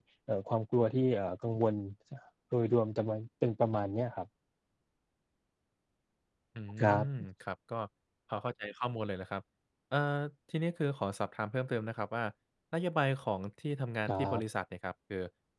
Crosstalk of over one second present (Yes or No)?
No